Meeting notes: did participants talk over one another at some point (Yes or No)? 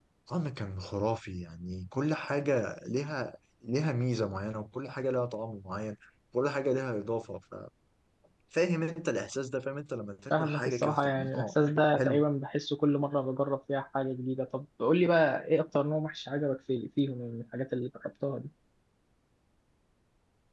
Yes